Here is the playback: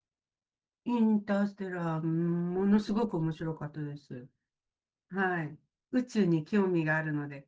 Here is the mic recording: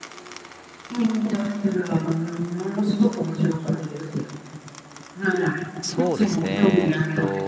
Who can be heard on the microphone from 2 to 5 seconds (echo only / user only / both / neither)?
echo only